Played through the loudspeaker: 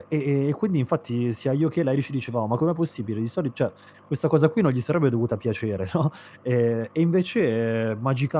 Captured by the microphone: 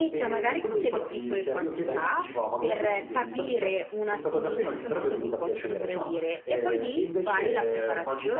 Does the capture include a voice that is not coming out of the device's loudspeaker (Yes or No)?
Yes